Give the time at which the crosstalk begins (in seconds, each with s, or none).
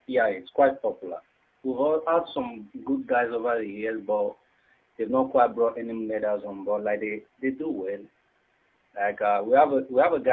none